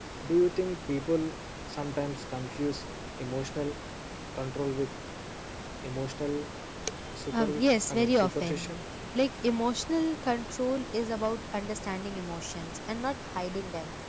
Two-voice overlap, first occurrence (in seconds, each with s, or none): 7.3 s